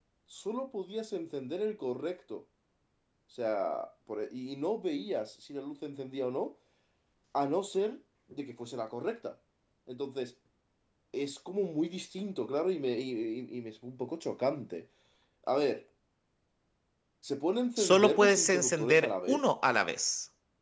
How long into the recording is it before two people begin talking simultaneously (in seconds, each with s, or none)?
17.8 s